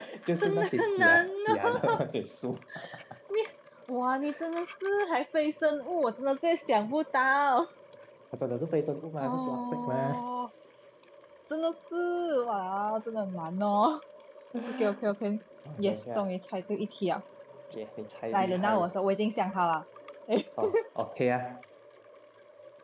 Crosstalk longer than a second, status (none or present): present